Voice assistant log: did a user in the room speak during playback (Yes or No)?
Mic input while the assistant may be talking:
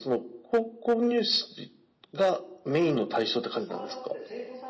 Yes